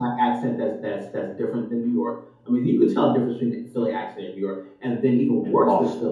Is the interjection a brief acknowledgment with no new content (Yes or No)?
Yes